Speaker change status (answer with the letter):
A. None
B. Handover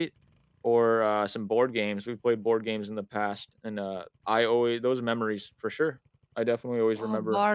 B